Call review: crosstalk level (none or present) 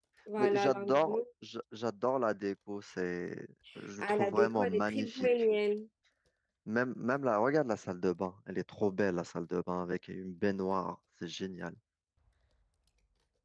present